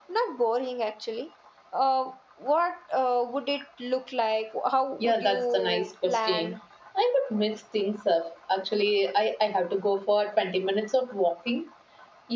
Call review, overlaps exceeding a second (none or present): present